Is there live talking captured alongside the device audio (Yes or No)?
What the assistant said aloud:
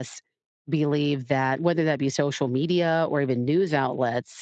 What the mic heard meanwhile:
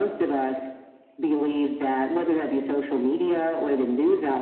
No